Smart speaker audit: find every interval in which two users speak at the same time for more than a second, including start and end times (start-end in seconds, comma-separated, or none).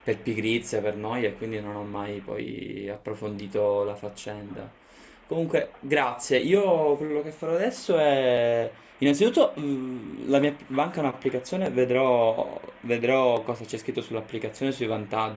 none